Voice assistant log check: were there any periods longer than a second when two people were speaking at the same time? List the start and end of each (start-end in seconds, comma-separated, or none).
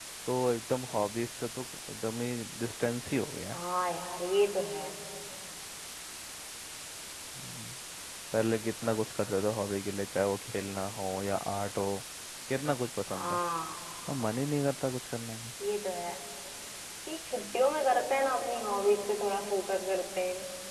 none